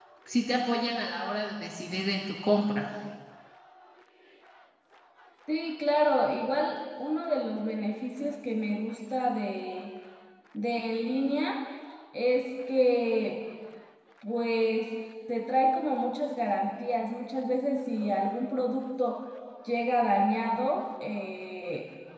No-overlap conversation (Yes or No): Yes